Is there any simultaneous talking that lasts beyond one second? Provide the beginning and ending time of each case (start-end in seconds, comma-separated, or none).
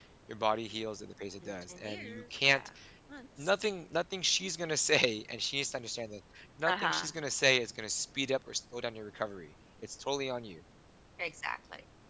1.4-2.7